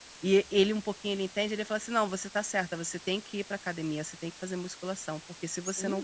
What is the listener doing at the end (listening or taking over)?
taking over